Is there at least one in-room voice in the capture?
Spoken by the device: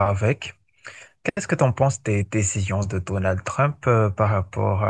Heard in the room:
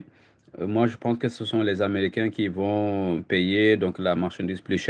Yes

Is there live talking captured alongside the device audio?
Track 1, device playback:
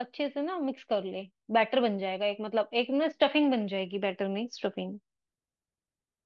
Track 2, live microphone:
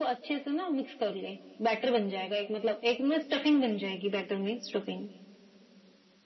No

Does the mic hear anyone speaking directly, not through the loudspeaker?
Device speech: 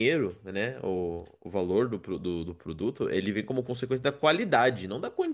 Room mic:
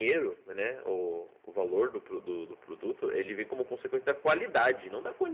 No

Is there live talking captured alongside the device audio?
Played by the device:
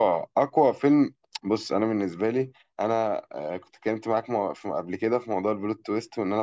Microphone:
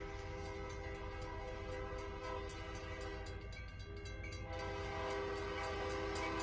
No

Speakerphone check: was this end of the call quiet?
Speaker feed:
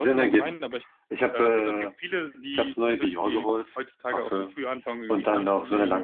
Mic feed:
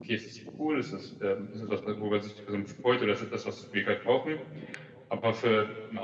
No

